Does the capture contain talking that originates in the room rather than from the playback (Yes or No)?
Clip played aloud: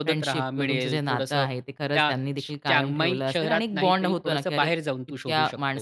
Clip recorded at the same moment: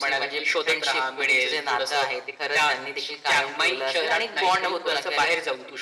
No